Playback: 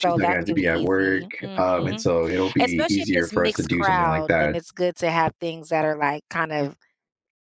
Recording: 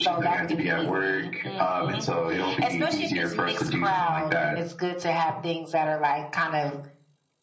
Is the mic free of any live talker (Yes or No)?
Yes